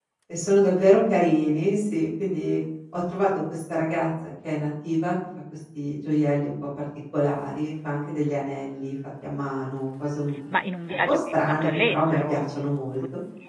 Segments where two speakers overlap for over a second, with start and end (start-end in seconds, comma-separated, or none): 10.9-12.4